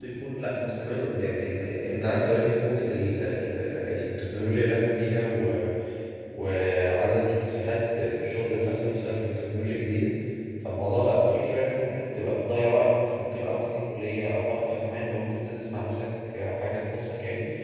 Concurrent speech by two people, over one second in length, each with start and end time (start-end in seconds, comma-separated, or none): none